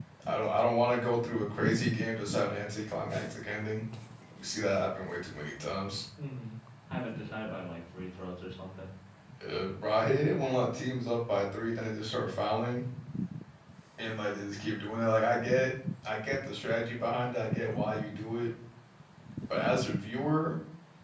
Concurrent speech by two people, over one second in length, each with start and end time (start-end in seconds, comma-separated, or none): none